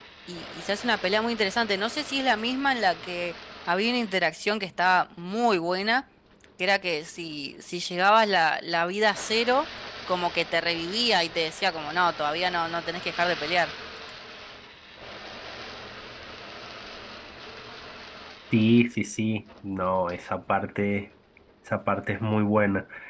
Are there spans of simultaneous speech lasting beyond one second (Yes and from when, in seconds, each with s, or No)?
No